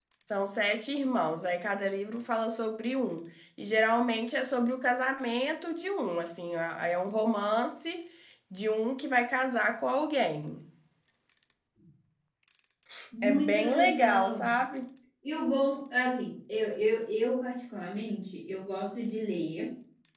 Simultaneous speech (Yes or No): Yes